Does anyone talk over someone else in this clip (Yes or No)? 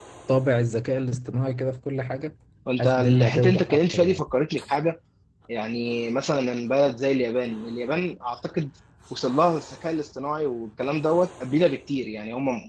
Yes